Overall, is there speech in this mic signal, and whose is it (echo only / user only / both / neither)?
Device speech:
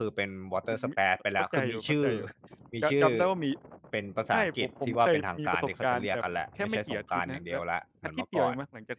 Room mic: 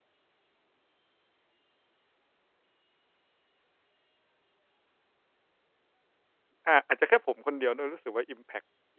user only